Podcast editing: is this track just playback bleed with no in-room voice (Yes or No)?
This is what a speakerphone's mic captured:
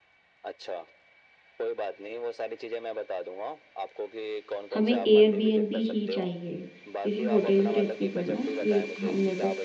No